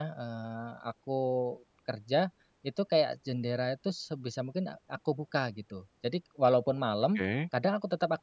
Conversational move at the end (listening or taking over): listening